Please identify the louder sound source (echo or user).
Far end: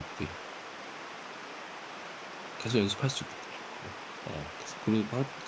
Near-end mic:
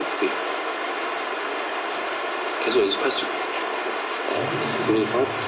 echo